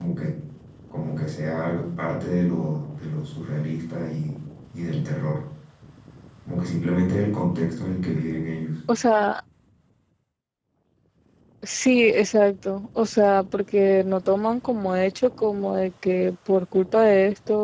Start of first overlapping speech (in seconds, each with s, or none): none